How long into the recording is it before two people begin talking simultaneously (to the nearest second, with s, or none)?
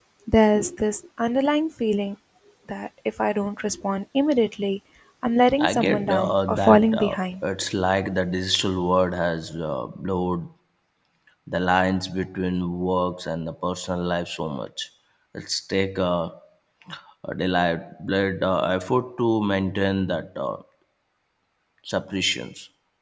6 s